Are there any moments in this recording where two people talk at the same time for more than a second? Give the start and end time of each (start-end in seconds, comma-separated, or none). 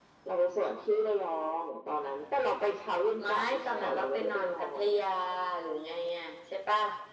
3.2-4.8